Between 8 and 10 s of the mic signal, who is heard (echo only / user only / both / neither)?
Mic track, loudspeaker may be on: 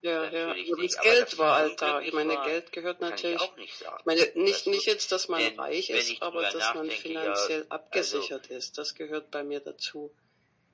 echo only